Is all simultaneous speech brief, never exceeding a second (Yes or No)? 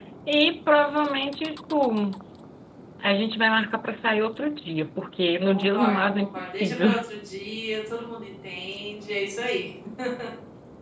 No